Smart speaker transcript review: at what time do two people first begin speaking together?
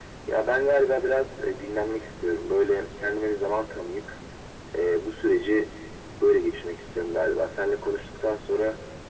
none

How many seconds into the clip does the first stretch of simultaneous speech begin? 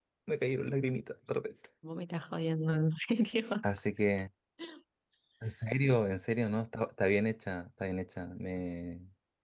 none

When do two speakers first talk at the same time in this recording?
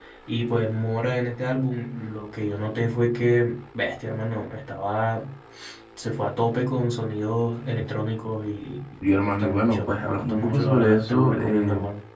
9.0 s

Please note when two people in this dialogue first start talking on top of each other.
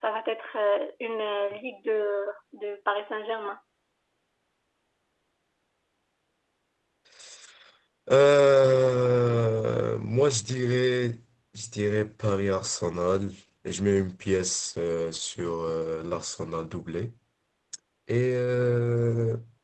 none

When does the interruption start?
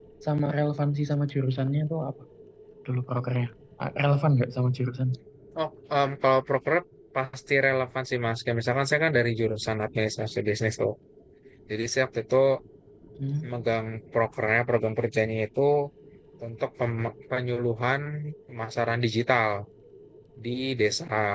none

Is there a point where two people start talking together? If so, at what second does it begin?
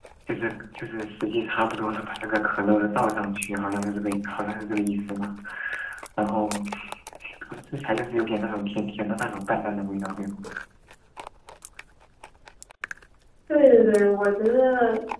none

